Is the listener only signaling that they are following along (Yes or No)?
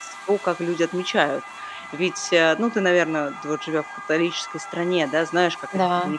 Yes